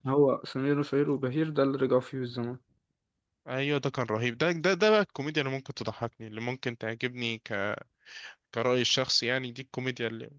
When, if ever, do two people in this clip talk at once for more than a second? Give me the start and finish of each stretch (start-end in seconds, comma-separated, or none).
none